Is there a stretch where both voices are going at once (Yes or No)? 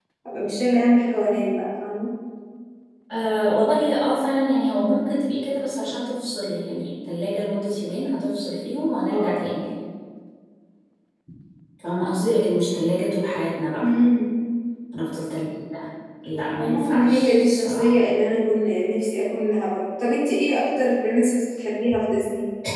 Yes